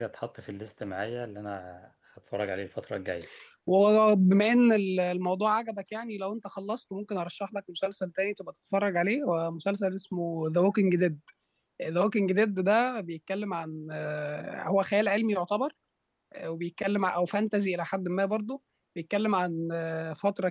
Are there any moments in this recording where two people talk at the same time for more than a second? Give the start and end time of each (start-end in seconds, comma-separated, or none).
none